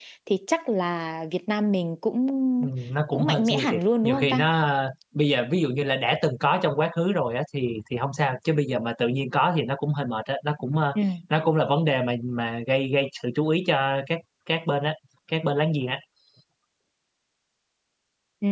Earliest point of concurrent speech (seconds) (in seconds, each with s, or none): 3.1 s